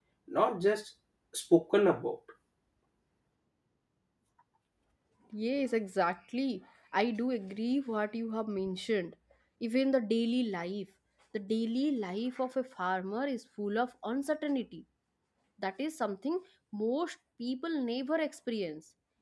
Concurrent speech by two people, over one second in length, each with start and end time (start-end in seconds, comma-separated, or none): none